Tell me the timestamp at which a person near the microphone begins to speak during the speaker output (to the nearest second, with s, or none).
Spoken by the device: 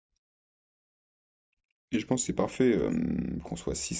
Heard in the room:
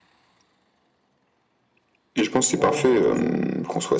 3 s